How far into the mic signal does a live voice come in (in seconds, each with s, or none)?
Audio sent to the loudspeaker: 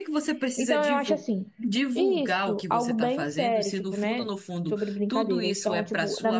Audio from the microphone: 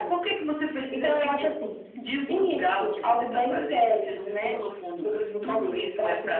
none